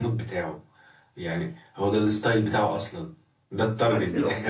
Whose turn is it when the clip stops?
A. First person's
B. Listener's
B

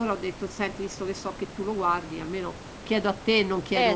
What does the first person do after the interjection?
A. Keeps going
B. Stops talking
B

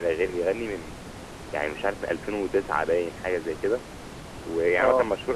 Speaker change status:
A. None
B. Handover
A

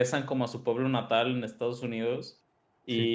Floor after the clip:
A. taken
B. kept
B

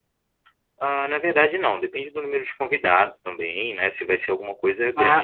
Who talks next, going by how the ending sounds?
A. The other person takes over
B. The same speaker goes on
A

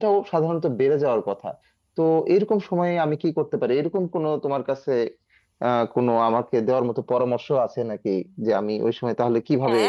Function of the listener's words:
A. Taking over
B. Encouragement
A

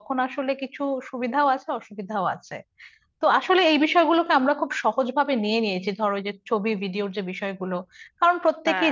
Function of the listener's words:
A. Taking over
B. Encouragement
B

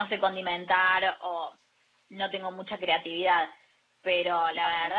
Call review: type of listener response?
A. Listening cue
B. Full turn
A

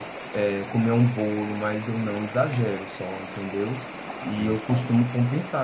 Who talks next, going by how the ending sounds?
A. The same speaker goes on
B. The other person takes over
A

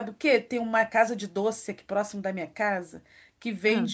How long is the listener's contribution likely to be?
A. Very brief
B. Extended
A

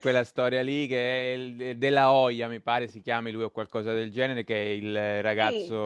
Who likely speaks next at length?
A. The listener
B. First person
B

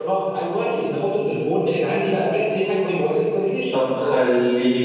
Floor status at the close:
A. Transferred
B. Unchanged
A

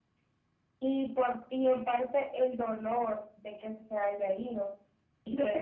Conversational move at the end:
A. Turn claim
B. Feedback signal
B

